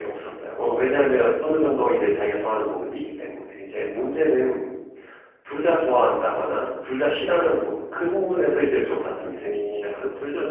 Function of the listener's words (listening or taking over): taking over